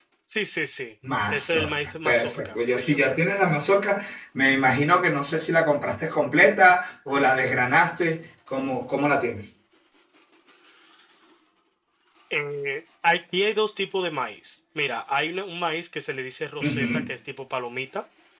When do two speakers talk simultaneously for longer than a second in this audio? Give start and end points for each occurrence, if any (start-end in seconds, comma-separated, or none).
1.3-3.2